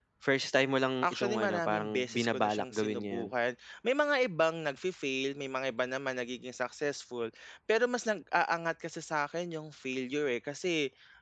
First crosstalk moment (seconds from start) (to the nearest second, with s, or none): 1 s